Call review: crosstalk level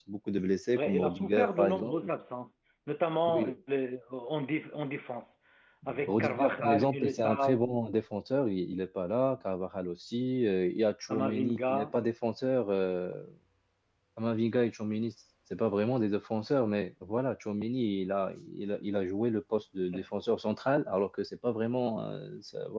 present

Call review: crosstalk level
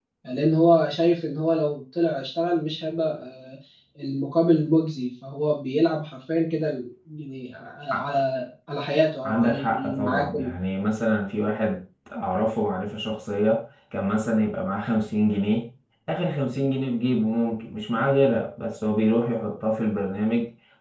present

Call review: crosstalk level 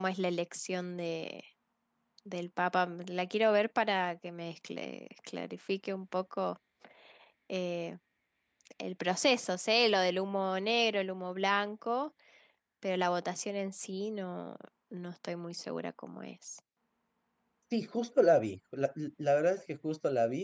none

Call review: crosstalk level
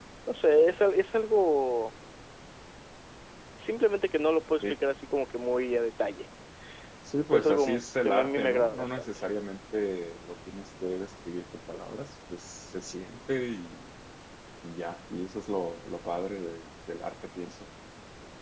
present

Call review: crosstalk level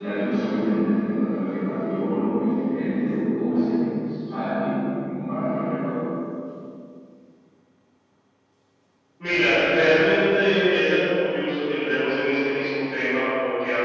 none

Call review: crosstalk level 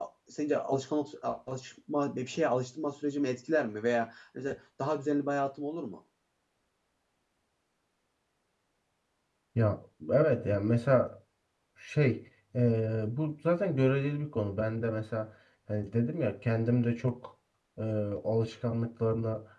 none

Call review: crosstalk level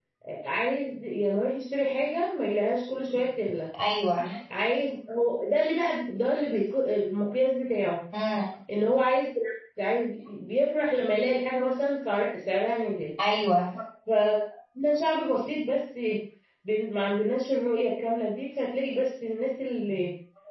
none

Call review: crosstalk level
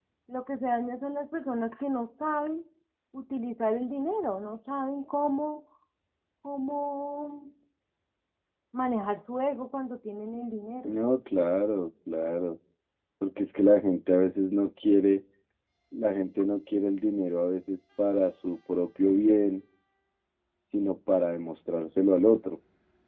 none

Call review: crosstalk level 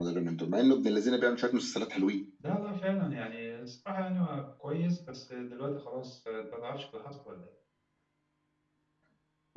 none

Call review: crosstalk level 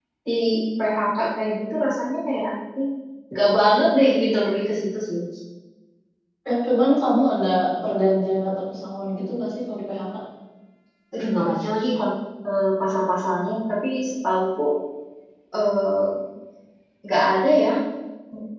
none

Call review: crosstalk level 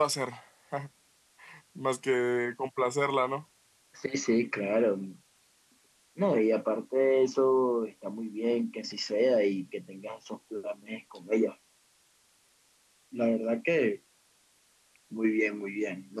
none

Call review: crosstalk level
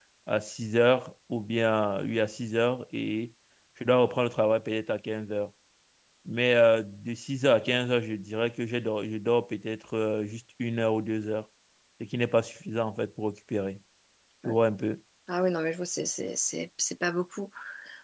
none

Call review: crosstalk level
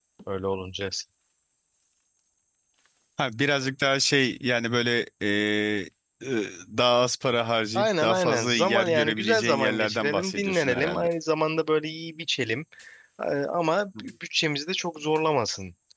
present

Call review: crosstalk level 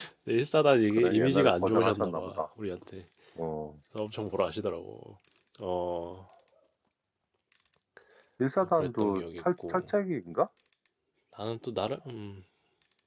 present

